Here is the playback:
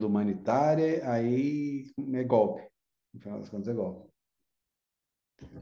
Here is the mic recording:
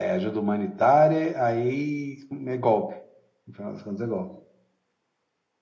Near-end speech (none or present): none